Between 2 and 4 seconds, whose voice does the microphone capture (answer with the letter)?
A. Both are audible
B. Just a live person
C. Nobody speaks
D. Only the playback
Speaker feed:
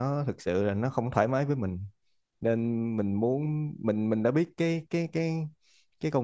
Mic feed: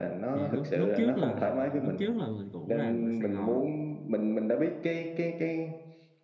A